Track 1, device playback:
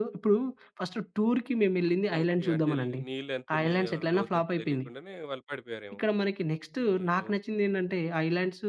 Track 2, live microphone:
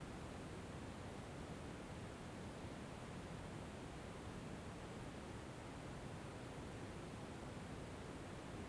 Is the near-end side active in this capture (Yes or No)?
No